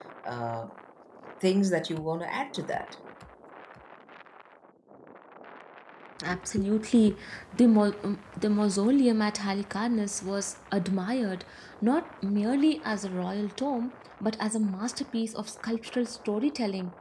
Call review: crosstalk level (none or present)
none